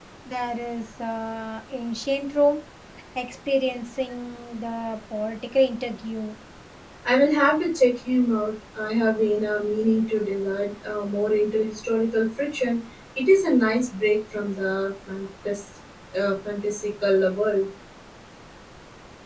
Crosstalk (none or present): none